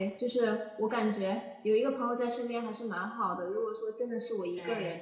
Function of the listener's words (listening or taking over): listening